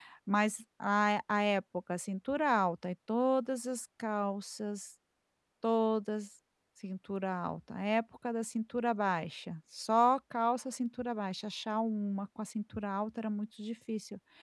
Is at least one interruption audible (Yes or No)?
No